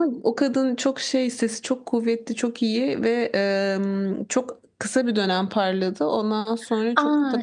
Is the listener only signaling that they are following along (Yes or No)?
No